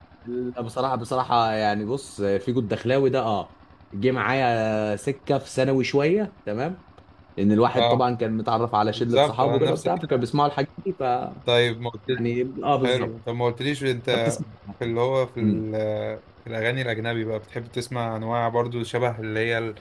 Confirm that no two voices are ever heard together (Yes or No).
No